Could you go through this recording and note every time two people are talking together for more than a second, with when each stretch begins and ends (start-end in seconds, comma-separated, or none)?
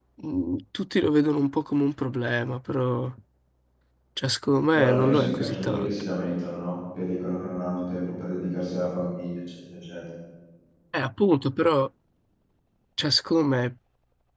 4.7-6.0